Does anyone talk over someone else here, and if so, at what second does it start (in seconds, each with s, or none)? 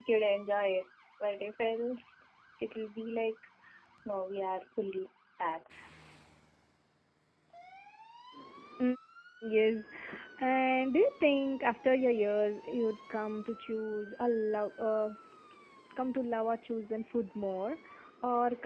none